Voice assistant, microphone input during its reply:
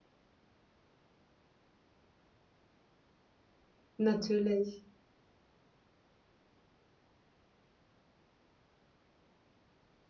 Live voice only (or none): Natürlich.